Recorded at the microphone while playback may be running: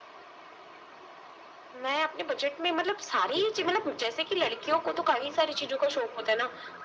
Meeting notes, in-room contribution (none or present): present